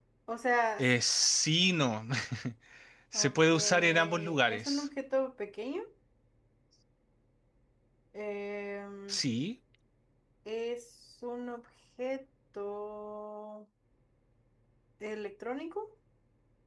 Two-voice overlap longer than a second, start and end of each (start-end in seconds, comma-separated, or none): 3.1-4.9